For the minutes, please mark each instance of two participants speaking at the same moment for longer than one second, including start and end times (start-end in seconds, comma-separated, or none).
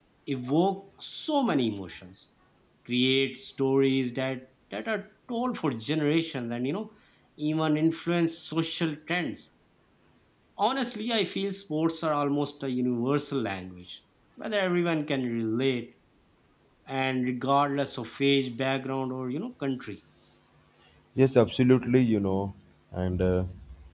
none